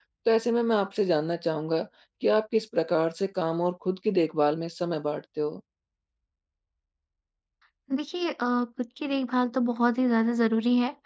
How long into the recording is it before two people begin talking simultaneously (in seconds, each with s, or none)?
none